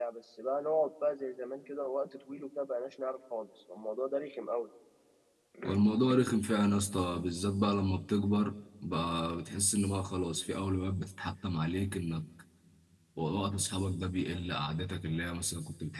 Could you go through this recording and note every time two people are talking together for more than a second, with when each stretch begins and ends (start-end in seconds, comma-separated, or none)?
none